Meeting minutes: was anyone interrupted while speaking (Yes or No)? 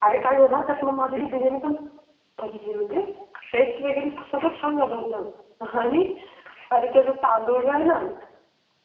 No